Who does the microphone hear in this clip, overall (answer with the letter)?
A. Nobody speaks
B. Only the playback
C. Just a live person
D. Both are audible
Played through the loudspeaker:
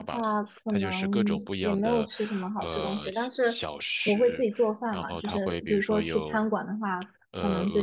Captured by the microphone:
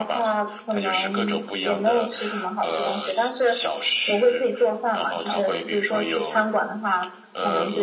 B